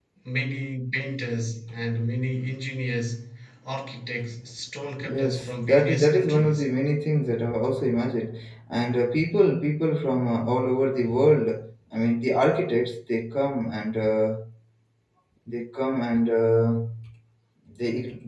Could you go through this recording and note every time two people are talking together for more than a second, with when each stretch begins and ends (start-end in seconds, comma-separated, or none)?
5.0-6.7